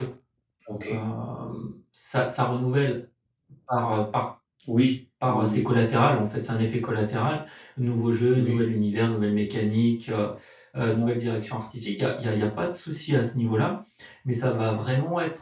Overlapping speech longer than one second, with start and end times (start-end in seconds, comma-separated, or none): none